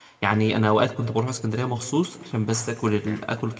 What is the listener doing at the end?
listening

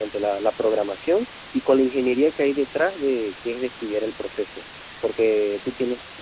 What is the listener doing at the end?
taking over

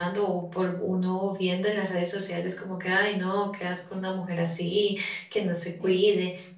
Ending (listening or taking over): listening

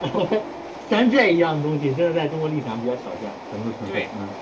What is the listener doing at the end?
taking over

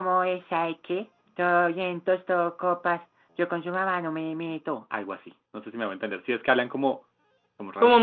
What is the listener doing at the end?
taking over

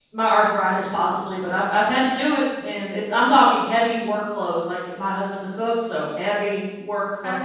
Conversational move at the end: taking over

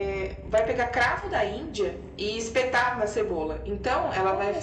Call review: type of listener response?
listening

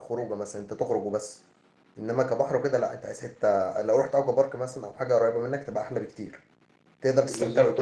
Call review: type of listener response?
listening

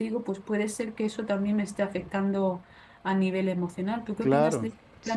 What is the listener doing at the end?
taking over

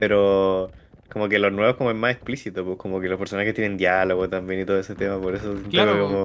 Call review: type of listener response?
listening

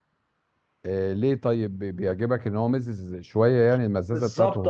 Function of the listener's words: taking over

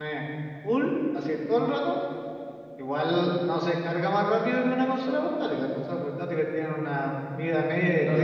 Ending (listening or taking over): taking over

